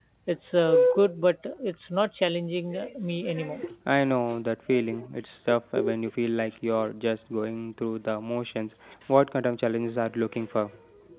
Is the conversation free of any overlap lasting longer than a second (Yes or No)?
Yes